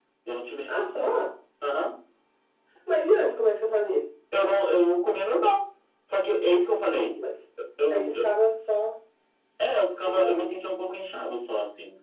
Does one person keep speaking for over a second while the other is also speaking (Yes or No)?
No